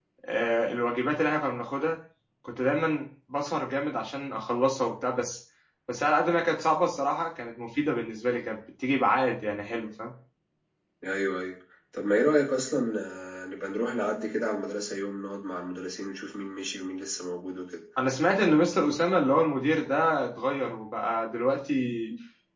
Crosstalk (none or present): none